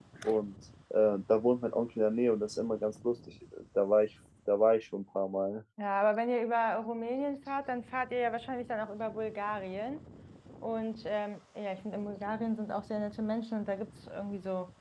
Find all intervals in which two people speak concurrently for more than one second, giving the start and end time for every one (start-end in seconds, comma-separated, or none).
none